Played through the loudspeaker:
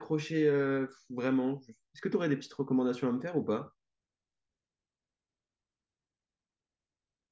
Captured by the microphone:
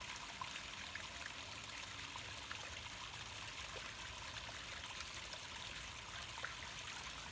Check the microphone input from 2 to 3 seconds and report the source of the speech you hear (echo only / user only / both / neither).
neither